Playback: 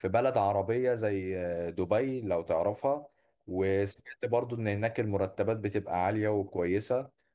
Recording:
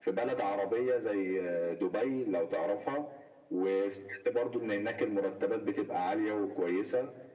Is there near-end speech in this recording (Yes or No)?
No